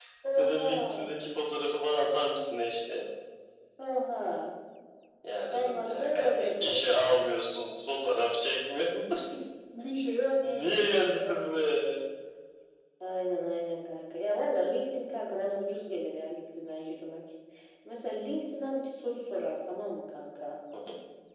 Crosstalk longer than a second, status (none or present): present